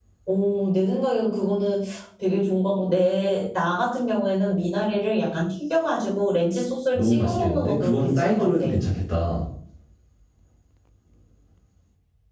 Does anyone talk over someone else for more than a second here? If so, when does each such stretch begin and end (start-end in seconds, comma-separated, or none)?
6.9-8.6